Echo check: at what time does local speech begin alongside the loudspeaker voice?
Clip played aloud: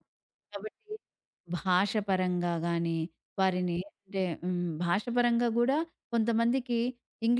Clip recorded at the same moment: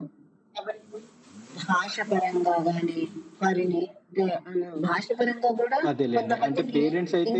5.9 s

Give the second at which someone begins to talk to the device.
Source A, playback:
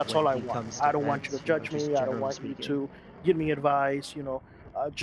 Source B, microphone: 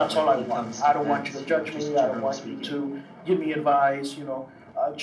none

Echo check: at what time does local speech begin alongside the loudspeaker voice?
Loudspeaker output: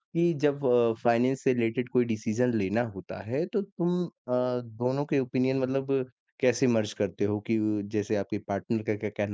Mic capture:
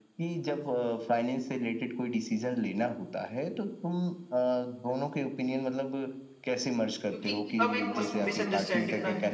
7.1 s

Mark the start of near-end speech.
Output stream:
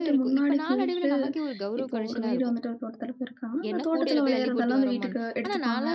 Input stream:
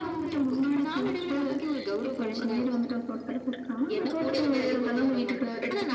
none

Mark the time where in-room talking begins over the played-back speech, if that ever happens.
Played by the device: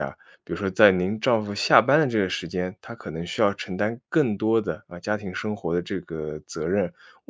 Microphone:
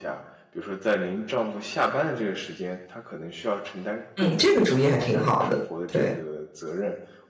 4.2 s

